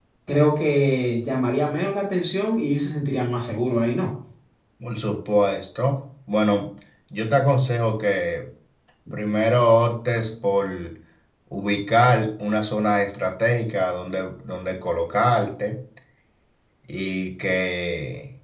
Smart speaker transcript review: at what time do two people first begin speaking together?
none

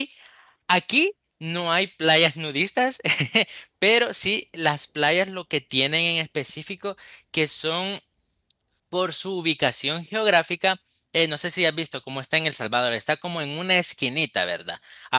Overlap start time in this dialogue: none

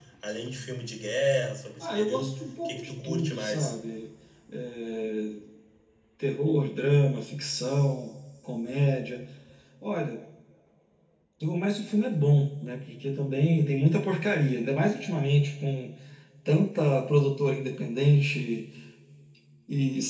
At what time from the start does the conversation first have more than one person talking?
2 s

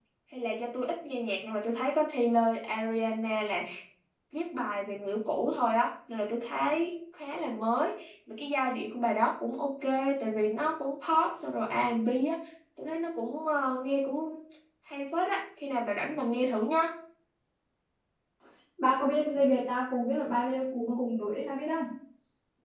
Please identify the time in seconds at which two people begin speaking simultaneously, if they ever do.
none

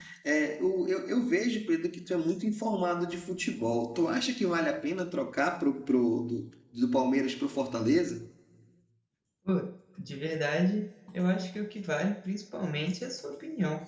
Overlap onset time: none

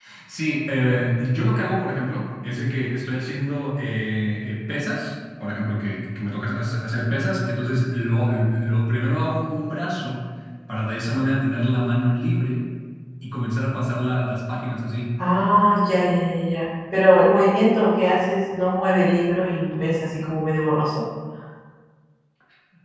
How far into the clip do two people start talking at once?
none

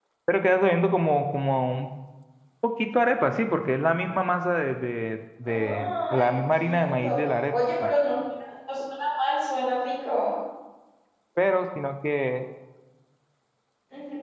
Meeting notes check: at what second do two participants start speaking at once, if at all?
5 s

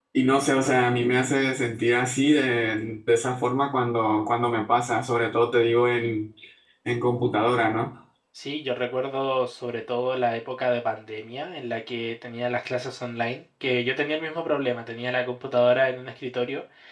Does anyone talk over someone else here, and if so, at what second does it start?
none

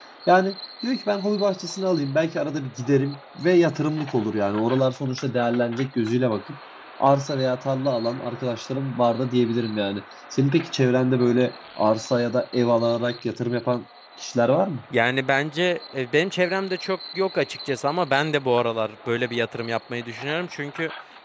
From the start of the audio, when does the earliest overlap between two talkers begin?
none

